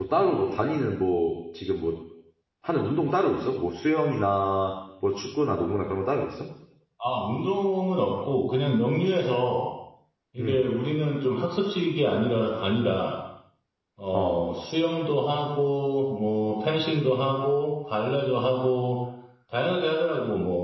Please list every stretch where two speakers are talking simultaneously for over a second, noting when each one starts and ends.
none

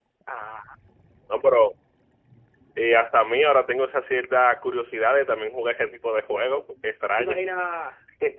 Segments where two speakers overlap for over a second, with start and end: none

